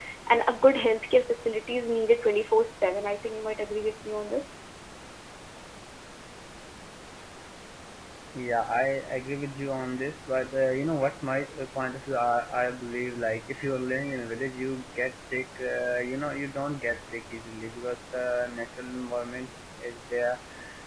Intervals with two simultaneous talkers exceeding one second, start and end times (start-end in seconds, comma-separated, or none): none